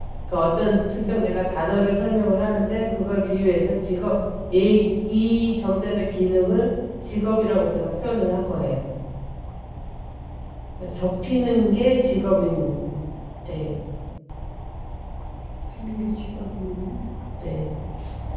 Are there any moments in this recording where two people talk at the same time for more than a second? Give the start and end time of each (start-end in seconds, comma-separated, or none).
none